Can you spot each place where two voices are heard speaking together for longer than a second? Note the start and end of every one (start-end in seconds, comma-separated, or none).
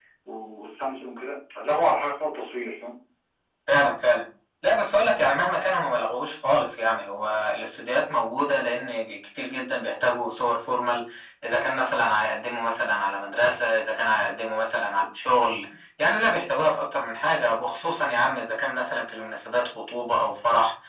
none